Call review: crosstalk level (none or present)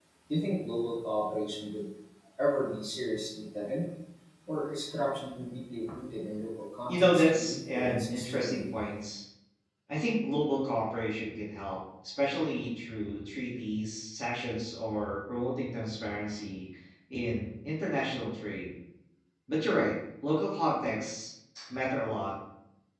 present